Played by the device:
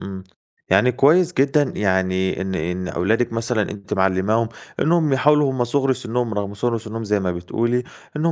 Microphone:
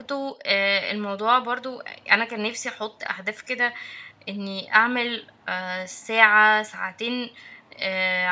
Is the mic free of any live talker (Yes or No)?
No